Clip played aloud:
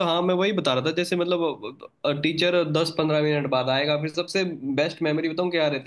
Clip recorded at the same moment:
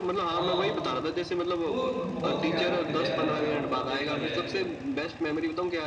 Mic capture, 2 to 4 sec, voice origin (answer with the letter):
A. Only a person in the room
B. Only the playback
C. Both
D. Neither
C